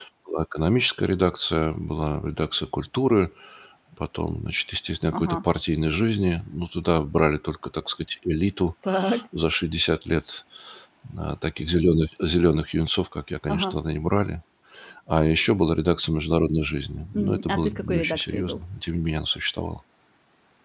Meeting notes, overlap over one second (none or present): present